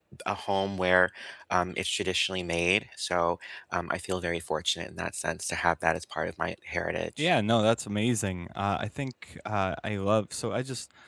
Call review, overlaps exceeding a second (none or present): none